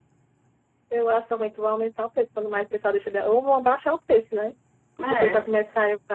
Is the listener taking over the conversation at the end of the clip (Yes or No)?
No